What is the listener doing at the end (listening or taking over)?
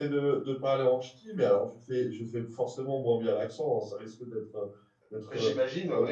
listening